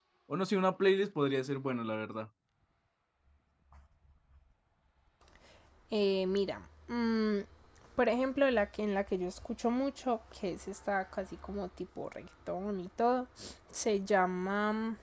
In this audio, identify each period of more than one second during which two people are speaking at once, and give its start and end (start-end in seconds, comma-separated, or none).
none